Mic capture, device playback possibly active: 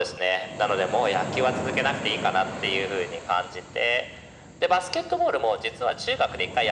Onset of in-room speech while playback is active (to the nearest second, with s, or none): none